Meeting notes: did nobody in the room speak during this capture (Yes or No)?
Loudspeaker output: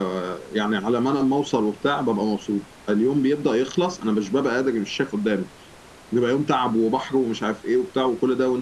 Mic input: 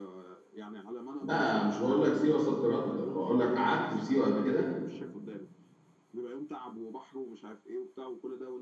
No